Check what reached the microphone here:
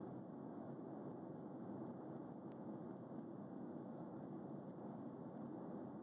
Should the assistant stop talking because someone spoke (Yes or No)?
No